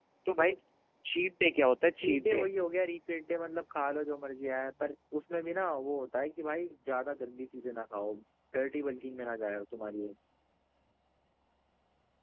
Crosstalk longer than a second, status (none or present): none